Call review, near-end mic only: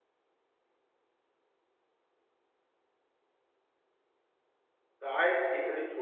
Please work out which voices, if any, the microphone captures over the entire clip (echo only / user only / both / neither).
user only